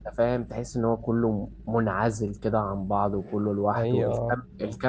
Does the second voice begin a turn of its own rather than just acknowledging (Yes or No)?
No